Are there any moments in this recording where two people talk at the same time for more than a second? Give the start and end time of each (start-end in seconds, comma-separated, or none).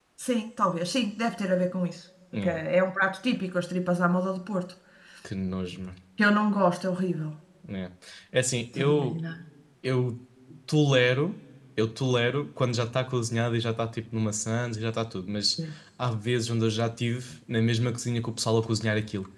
none